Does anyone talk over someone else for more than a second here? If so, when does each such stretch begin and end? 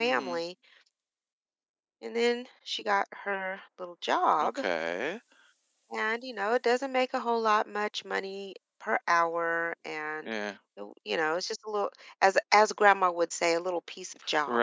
none

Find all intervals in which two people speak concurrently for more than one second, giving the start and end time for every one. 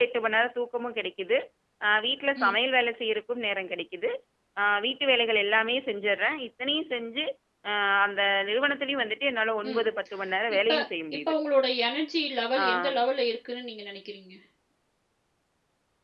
none

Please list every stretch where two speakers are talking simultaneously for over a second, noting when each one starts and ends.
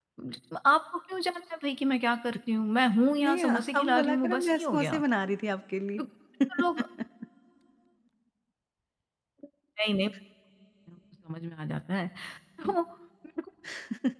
3.2-5.0

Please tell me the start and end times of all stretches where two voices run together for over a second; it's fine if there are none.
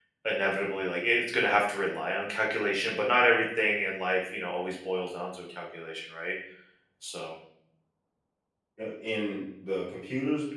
none

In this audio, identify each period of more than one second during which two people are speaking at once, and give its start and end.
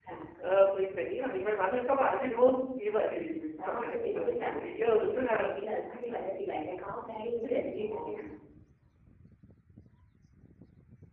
3.6-5.5

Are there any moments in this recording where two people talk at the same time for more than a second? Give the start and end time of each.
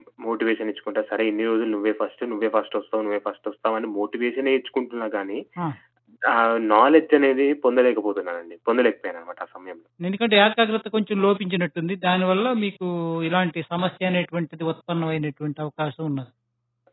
none

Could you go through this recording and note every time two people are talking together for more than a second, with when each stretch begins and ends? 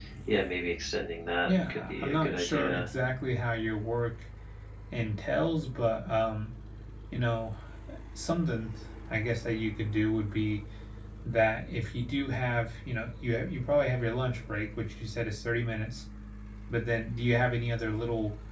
1.5-2.9

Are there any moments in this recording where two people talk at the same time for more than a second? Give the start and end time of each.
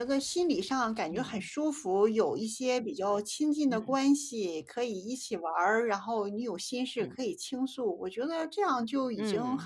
none

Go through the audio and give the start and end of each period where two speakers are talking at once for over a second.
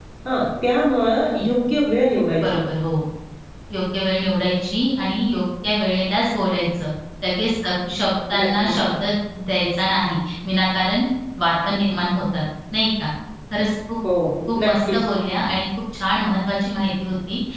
none

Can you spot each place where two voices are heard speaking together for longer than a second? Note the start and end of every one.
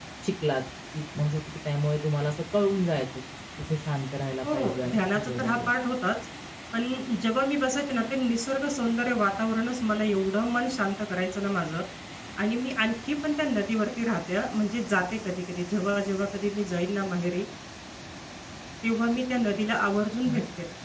4.4-5.7

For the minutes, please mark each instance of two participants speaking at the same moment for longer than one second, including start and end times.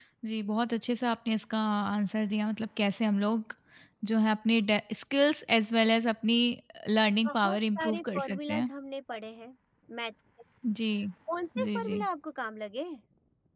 7.3-8.7

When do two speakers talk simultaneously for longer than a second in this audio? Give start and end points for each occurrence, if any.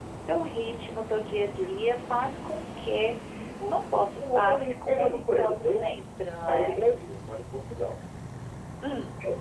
4.2-5.9

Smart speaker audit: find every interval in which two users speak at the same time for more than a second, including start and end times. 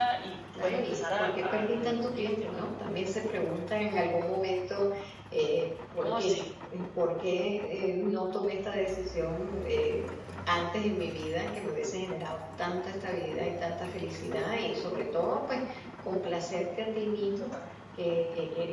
0.6-2.6

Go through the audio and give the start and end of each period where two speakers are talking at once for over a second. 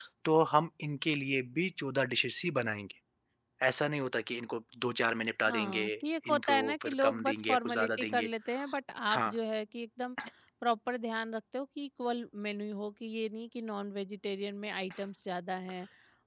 6.3-8.3

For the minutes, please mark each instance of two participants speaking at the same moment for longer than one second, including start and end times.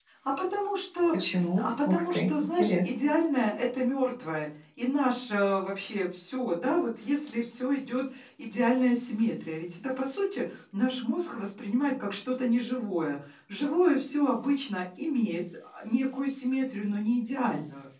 1.6-2.9

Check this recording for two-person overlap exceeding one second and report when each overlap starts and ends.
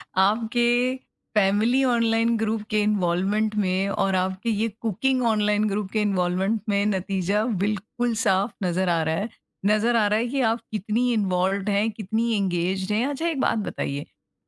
none

